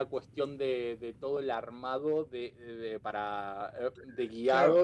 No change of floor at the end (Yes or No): No